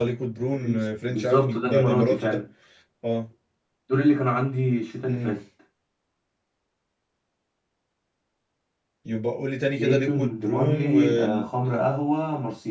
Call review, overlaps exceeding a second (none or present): present